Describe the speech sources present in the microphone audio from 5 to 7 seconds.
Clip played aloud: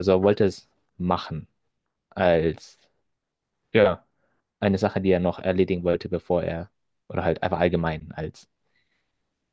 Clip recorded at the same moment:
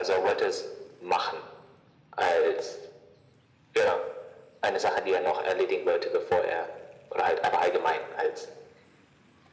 echo only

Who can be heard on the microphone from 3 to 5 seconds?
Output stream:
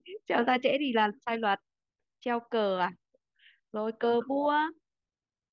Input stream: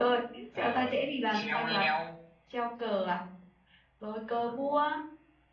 echo only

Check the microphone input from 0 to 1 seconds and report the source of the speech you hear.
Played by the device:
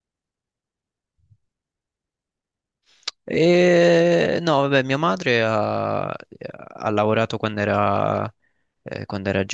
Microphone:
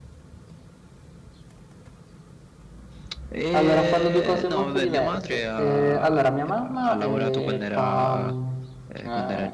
neither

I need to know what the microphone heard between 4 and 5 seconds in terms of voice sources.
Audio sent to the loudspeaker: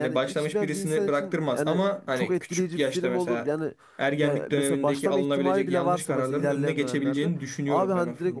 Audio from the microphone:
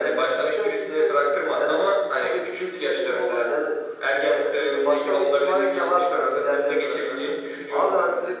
echo only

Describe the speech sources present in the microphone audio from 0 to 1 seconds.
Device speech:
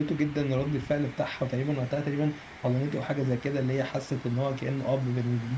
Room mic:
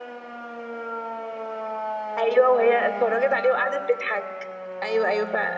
neither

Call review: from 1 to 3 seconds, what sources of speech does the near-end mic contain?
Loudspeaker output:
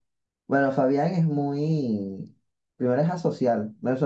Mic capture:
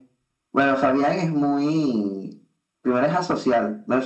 echo only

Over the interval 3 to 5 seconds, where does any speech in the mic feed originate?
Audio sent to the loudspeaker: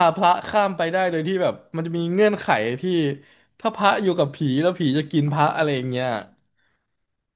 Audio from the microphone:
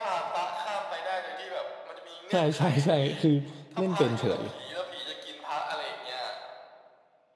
both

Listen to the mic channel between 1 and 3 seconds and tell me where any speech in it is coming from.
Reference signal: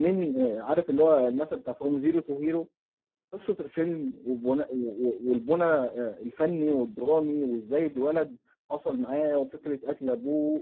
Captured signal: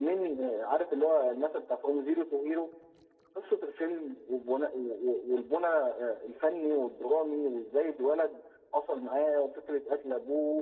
echo only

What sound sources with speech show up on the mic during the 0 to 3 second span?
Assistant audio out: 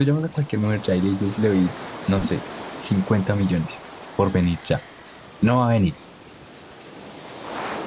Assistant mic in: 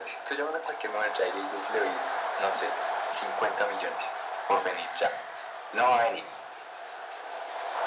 echo only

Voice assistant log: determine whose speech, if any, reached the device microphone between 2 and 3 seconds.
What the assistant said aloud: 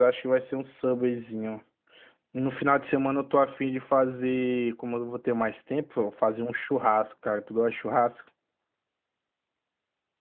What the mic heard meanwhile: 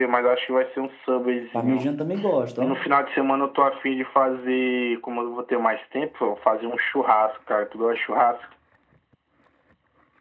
both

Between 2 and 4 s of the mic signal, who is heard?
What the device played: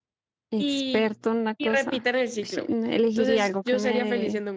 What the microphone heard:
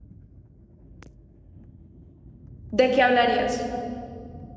user only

